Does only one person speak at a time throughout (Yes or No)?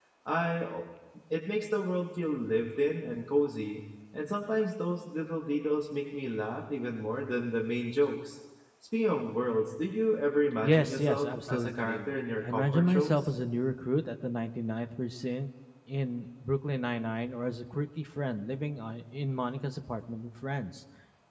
No